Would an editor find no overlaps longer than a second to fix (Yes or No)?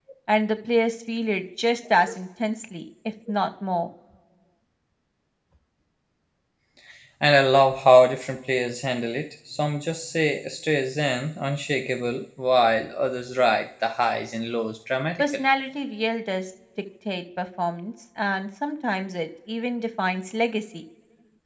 Yes